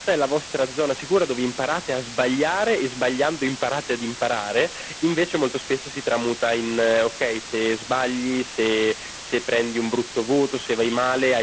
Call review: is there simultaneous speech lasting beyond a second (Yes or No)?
No